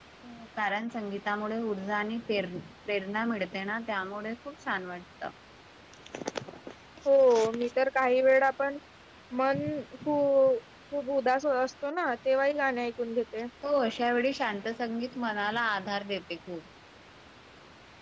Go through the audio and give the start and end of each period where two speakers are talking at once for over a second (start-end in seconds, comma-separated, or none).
none